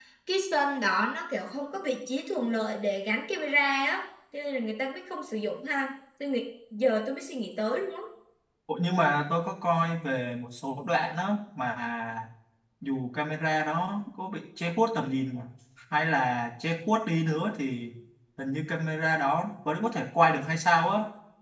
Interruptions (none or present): none